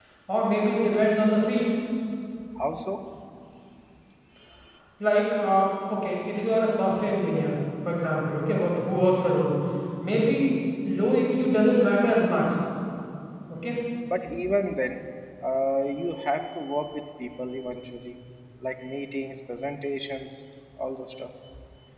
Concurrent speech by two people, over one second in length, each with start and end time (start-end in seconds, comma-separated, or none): none